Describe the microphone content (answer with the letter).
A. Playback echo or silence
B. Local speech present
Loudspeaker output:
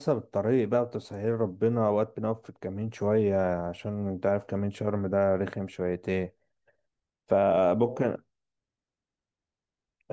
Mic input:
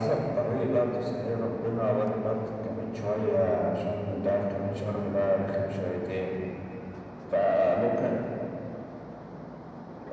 A